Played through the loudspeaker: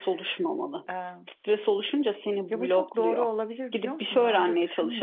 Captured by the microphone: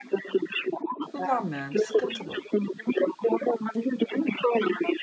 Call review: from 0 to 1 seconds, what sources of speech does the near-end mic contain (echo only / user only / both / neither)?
echo only